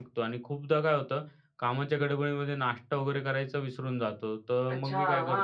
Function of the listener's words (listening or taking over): taking over